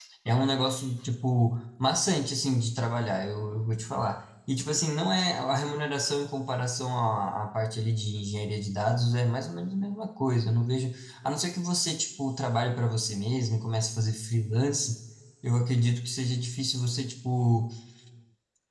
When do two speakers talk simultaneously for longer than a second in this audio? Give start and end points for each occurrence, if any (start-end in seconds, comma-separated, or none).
none